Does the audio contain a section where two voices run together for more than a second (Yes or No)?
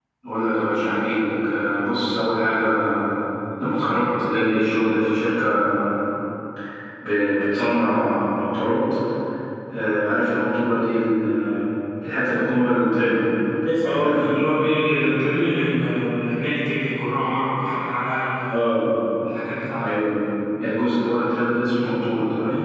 No